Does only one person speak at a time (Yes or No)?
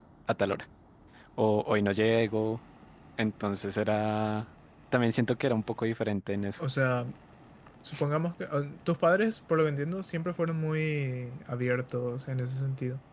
Yes